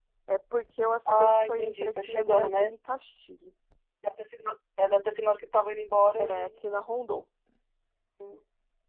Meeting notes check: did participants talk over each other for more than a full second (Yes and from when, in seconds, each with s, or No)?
Yes, from 1.1 s